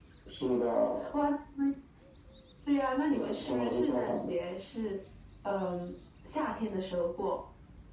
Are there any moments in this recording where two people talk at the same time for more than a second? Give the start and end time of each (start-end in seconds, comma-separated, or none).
3.0-4.3